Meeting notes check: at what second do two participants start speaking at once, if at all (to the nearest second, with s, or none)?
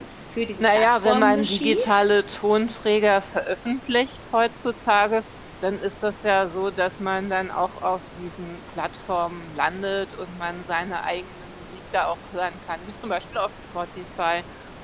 1 s